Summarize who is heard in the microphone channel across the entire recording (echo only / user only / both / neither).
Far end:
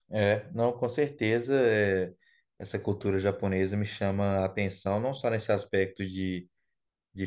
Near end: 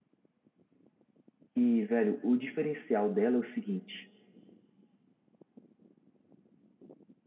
user only